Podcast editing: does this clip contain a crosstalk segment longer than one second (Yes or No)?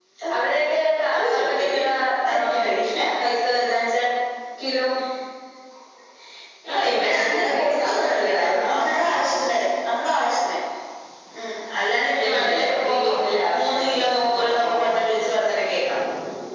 Yes